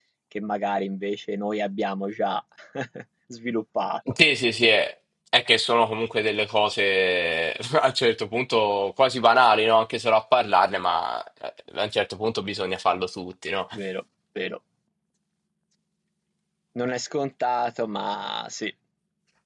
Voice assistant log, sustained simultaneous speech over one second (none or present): none